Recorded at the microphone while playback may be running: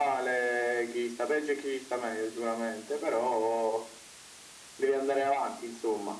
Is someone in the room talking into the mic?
No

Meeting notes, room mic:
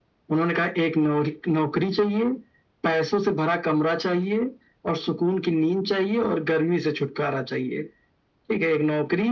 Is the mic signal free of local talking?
Yes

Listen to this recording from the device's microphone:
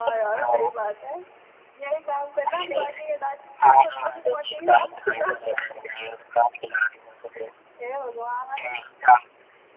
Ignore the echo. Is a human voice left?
Yes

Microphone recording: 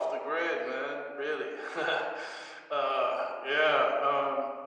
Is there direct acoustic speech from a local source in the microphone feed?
No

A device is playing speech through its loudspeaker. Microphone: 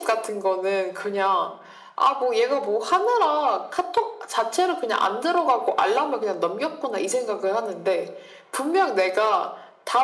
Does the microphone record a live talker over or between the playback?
No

